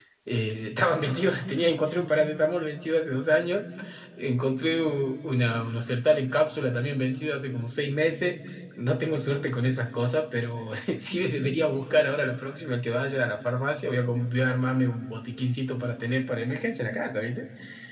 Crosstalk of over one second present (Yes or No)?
No